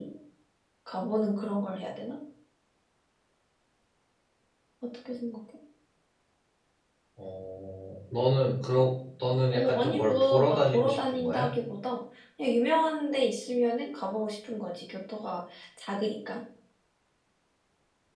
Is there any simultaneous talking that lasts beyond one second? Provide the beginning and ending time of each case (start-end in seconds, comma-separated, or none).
9.5-11.5